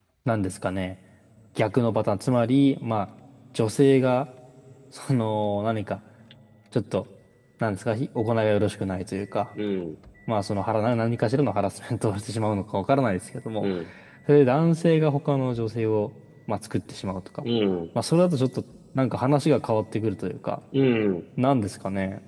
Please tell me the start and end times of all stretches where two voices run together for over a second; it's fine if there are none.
none

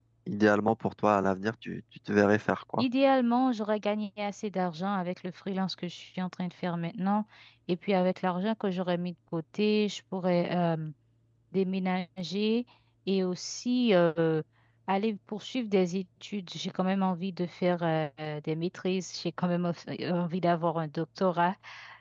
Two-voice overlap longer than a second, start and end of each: none

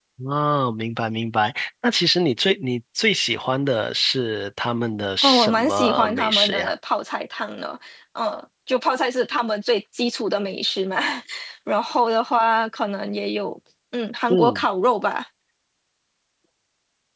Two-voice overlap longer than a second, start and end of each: 5.2-6.7

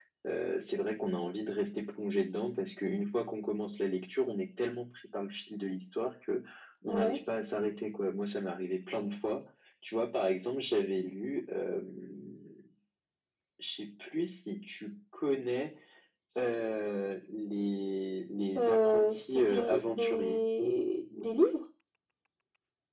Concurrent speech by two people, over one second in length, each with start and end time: 18.6-20.4

